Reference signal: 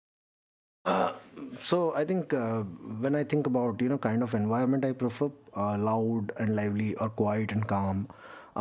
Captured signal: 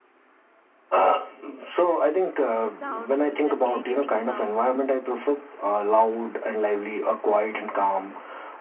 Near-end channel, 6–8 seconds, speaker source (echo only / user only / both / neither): echo only